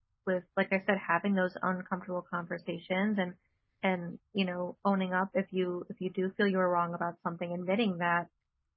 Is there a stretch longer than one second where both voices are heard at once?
No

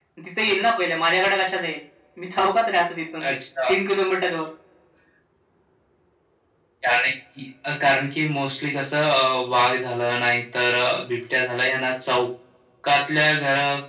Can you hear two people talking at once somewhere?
No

